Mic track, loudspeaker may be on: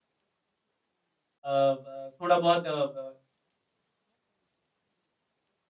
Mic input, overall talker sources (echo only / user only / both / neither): user only